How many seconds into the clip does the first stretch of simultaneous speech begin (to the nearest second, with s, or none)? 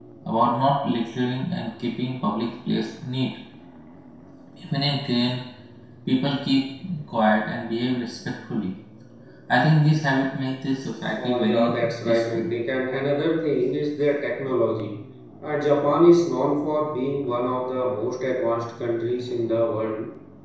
11 s